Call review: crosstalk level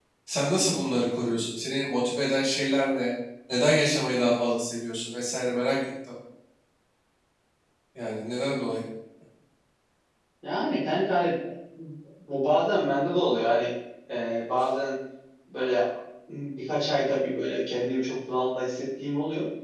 none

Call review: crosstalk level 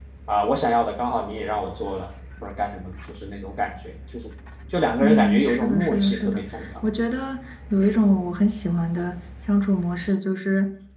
present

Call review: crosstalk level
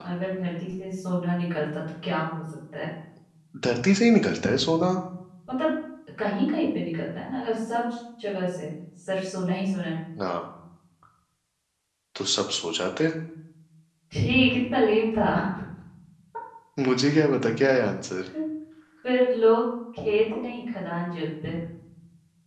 none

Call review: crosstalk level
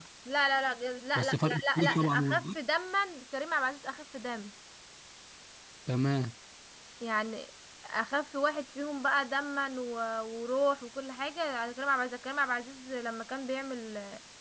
present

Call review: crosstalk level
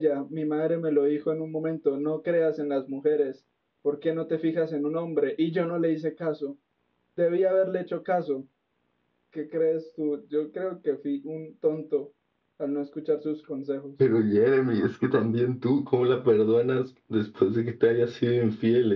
none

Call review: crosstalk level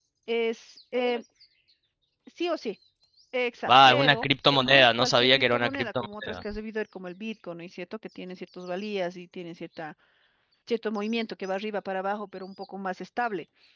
present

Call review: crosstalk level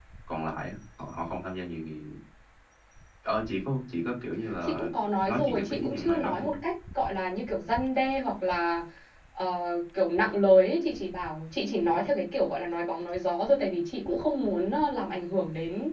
present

